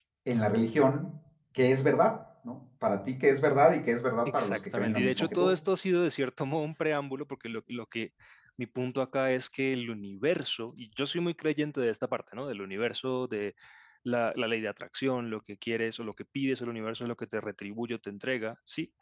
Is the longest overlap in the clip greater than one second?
Yes, from 4.2 s

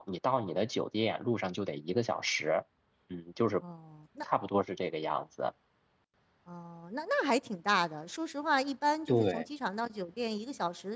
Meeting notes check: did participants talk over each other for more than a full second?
No

